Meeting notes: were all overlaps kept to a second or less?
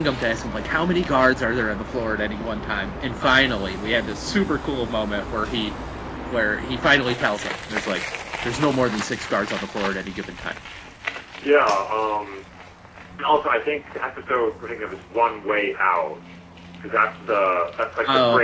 Yes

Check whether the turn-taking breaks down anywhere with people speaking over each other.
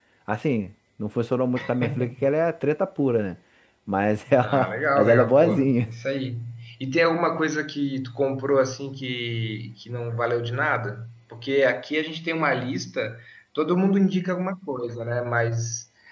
Yes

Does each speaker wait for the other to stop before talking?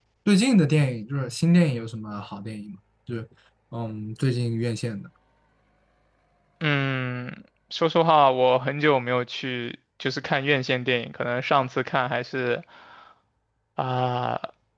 Yes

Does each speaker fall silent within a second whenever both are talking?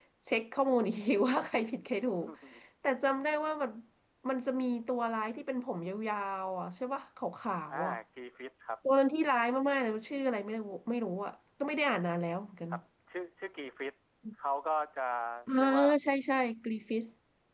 Yes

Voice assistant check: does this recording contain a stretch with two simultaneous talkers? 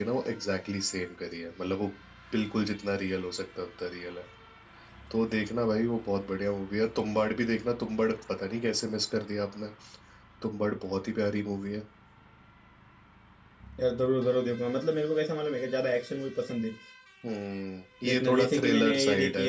Yes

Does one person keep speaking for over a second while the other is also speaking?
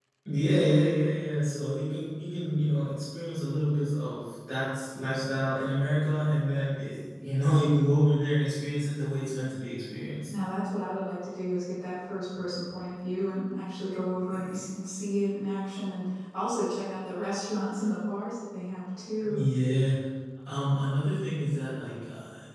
No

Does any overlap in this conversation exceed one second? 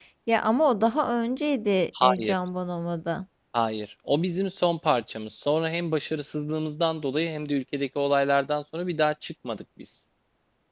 No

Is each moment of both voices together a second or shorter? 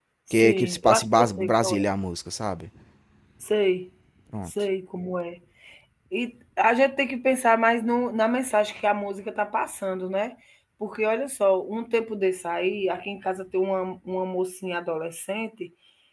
No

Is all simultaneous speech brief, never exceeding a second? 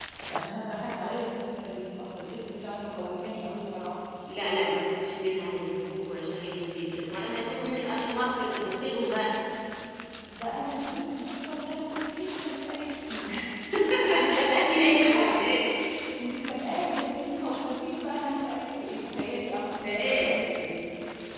Yes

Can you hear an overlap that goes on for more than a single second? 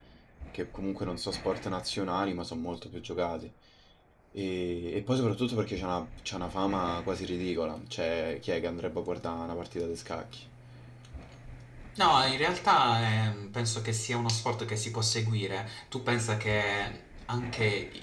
No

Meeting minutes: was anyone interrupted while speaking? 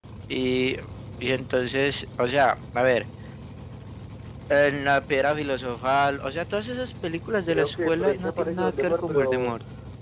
Yes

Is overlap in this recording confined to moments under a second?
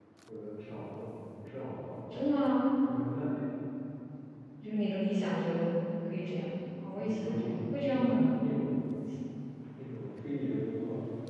No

